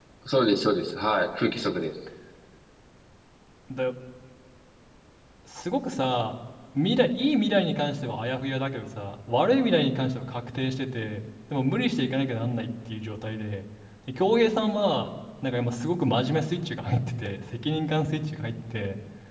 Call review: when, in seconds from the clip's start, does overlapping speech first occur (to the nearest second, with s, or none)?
none